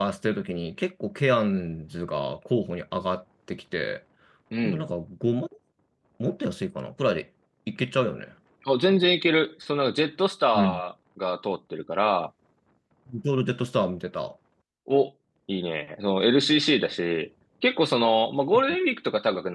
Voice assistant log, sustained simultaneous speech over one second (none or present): none